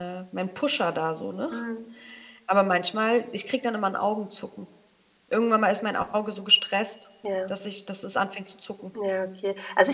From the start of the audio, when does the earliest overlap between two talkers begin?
none

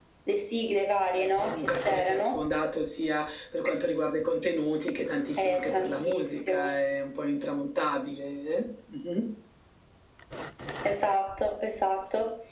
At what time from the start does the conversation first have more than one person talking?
1.1 s

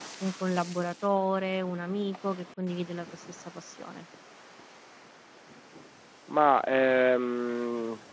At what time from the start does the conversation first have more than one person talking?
none

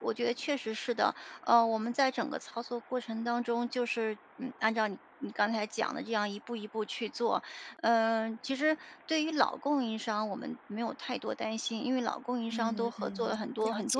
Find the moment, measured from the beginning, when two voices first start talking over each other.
12.5 s

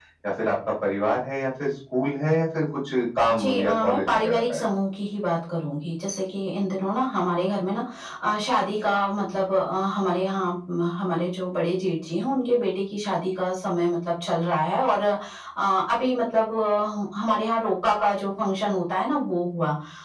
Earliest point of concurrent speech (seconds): 3.3 s

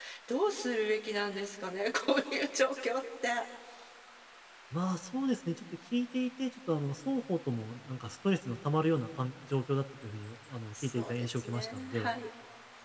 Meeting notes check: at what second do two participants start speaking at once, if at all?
10.8 s

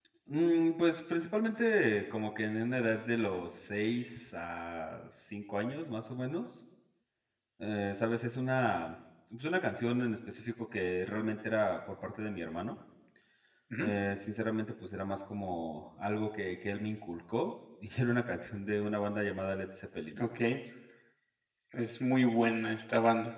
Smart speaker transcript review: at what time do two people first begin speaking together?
none

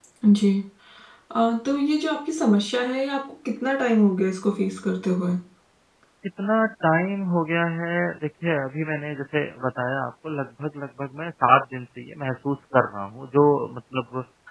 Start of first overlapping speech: none

